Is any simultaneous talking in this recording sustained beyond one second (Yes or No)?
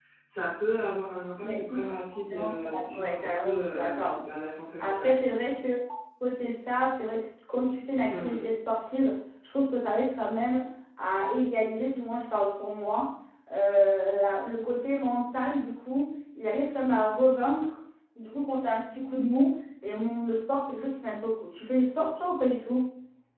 Yes